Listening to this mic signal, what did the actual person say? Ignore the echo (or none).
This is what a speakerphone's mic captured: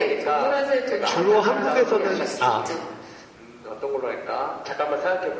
주로 한국에서는 아,